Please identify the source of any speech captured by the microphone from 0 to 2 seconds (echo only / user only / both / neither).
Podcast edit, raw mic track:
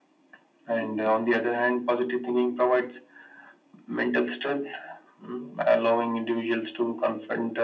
echo only